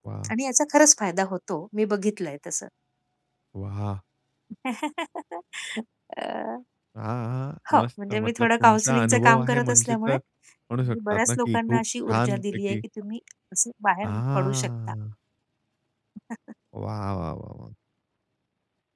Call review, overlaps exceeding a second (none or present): present